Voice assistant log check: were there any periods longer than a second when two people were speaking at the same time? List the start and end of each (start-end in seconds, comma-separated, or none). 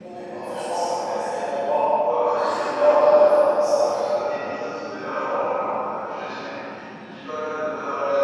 2.4-4.1